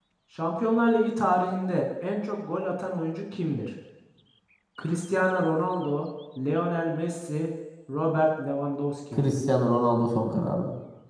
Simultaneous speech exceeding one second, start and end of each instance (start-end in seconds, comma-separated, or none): none